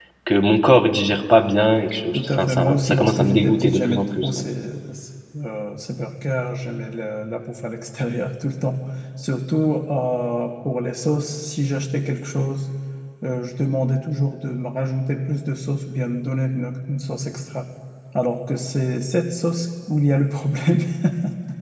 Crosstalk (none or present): present